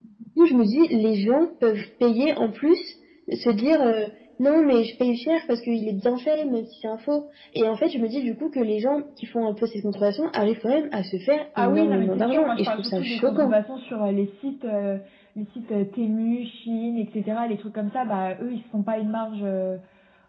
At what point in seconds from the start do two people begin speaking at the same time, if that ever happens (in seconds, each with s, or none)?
11.6 s